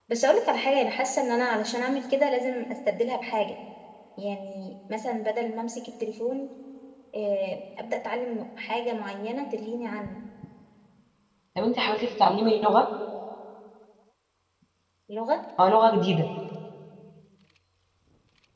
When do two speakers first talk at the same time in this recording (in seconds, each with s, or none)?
none